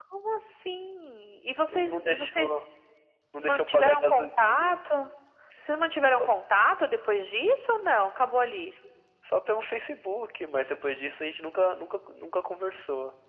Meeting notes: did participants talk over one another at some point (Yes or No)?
Yes